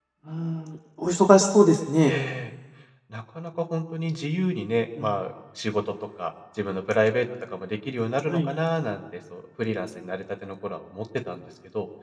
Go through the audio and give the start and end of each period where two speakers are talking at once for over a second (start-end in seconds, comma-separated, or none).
none